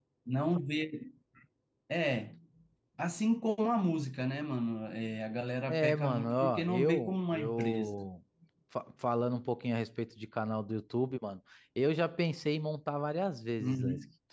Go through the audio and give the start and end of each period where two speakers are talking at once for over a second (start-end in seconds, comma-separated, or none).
5.7-7.9